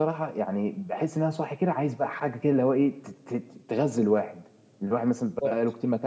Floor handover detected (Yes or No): No